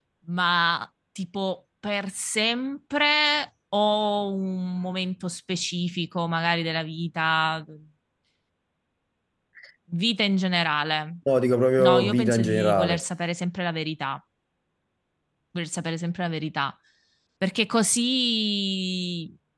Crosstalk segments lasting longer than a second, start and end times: 11.8-13.0

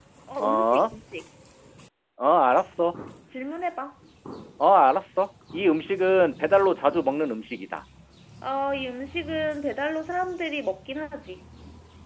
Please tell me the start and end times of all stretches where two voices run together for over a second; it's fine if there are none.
none

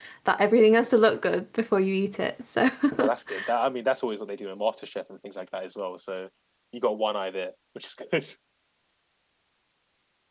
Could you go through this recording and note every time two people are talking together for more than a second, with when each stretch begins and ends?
none

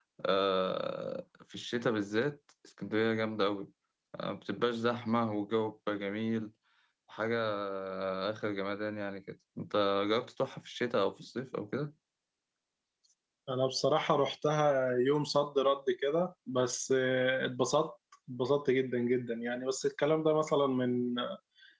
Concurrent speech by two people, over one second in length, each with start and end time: none

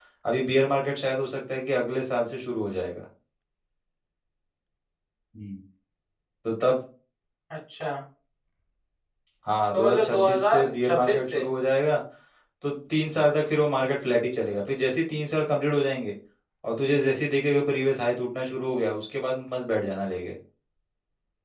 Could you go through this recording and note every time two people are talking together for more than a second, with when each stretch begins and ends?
9.7-11.4

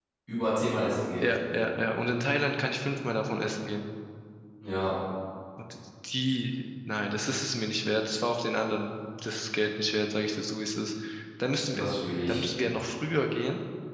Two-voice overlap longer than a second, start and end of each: none

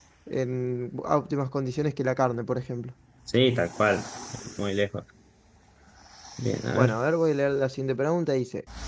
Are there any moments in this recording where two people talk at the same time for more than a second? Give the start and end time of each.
none

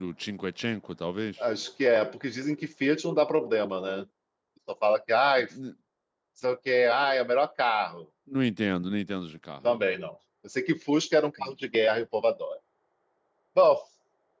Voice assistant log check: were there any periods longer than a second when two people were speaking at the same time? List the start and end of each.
none

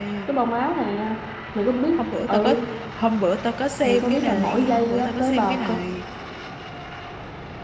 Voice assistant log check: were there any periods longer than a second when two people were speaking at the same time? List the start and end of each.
3.8-5.8

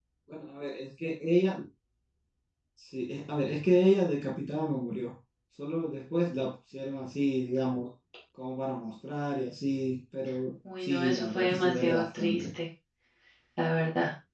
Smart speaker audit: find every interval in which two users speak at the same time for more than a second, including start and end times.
10.8-12.4

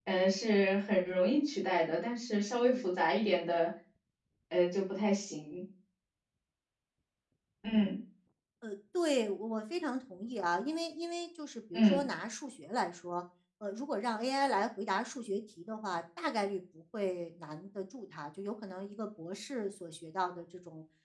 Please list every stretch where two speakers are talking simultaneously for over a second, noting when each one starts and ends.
none

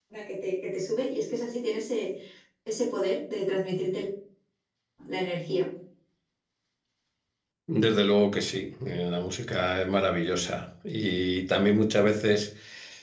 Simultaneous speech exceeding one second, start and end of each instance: none

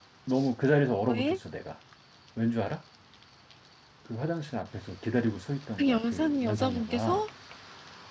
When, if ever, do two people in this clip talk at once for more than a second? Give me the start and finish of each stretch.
5.8-7.2

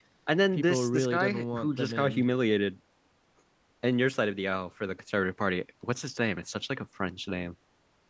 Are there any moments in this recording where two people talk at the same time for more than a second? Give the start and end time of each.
0.5-2.2

